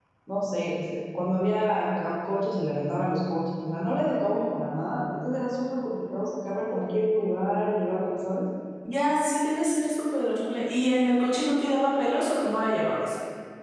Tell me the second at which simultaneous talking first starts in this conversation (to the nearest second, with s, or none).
none